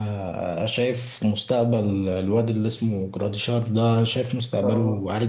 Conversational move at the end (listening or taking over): listening